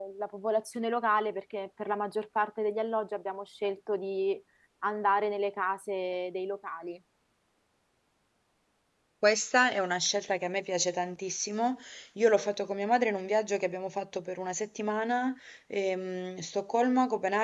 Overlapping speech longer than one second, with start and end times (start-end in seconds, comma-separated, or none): none